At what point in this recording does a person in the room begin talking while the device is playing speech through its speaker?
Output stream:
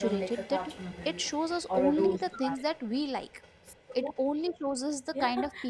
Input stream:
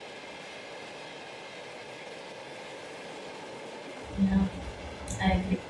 4 s

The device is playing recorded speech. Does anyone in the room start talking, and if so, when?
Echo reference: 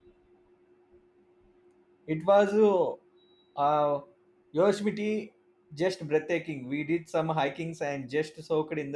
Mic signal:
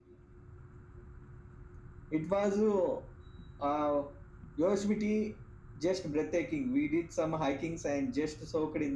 none

